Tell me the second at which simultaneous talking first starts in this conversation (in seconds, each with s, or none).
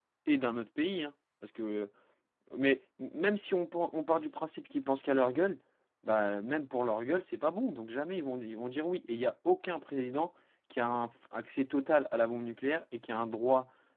none